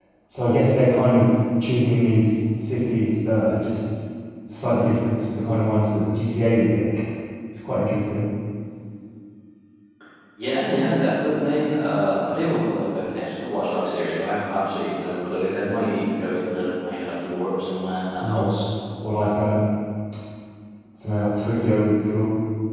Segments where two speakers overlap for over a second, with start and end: none

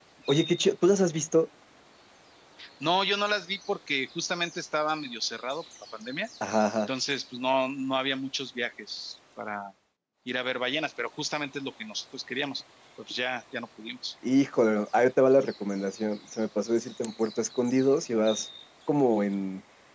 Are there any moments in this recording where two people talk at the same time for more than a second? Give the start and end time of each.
none

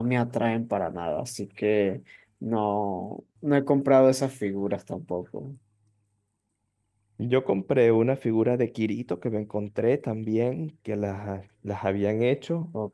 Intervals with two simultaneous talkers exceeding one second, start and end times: none

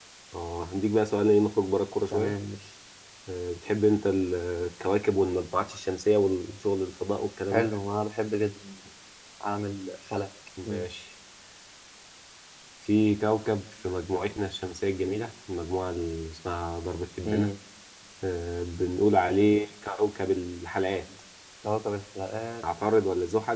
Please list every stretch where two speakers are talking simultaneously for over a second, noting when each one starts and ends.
none

